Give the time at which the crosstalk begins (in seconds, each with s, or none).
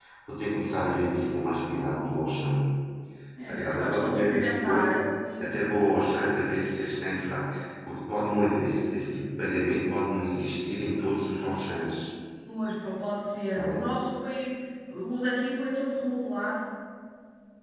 3.5 s